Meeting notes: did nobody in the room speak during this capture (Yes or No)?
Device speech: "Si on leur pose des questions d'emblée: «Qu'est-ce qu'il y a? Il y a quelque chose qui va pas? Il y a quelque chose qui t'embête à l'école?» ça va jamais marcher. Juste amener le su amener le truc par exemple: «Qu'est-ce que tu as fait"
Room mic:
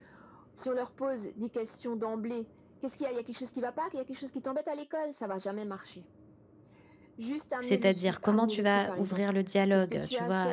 No